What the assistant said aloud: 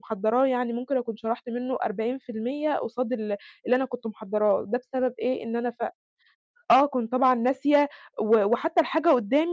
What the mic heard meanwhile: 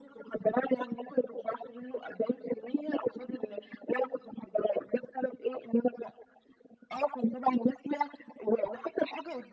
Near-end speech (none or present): none